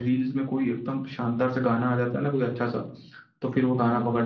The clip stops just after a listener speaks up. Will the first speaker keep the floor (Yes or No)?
Yes